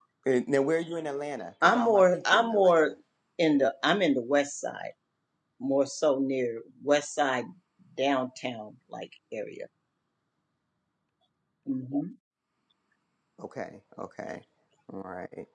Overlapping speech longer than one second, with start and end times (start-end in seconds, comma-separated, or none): 1.6-2.9